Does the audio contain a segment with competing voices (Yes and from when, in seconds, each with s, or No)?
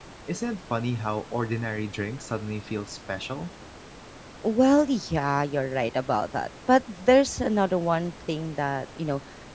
No